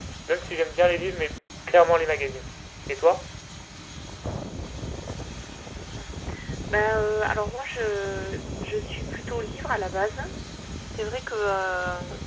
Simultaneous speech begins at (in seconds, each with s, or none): none